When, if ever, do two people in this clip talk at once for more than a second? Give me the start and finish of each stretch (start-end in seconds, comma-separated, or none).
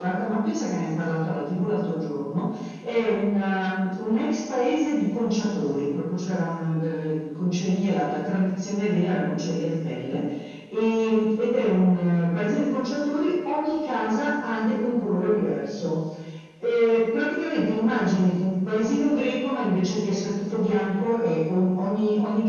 none